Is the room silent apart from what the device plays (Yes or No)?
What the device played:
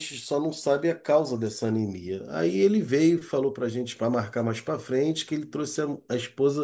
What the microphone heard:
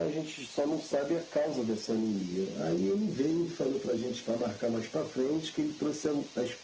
Yes